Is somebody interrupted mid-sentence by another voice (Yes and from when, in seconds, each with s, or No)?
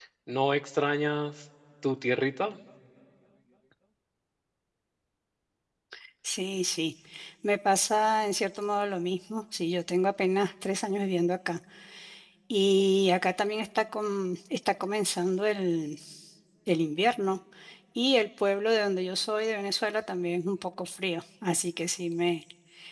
No